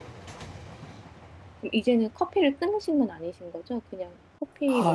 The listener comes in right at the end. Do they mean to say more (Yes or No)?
Yes